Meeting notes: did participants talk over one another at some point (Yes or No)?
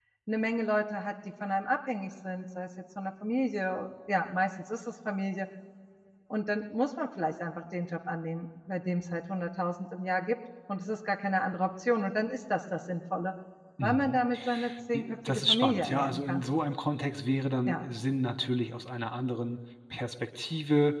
Yes